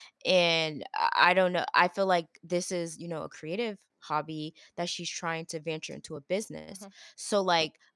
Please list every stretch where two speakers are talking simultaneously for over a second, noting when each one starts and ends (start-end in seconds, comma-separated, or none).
none